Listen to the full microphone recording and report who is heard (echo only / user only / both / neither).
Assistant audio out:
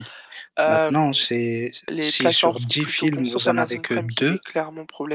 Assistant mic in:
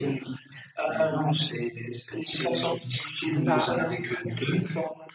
both